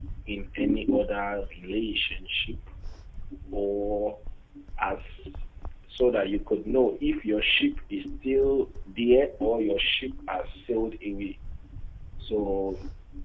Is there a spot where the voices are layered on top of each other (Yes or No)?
No